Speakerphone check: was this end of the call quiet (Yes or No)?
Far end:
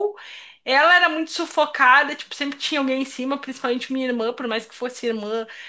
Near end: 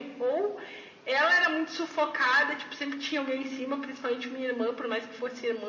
Yes